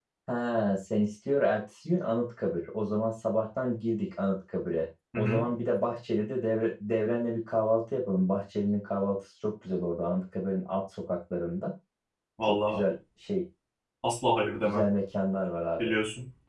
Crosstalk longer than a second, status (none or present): none